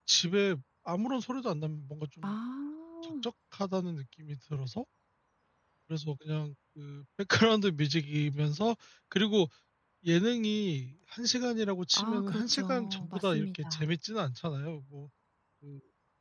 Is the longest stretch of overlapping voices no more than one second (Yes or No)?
No